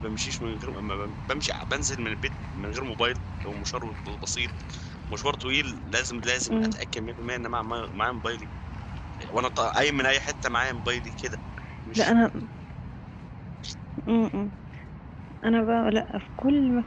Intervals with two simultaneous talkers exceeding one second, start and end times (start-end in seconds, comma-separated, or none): none